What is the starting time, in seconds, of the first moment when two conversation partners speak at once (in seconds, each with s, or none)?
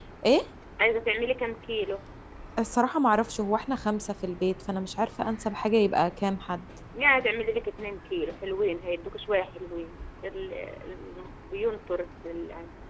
none